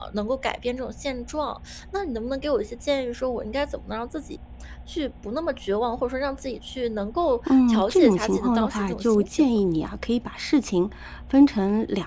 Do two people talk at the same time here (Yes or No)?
Yes